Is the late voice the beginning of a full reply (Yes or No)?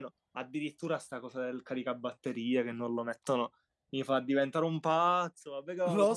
No